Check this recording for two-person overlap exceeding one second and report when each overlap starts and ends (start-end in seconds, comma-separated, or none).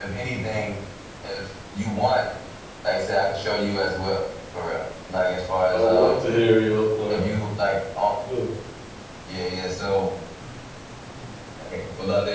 none